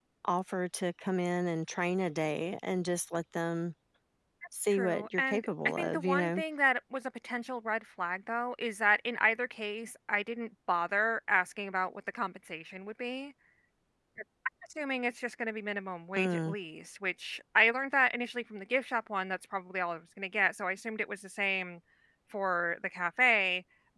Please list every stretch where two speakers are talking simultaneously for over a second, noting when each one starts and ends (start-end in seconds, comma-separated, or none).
4.7-6.4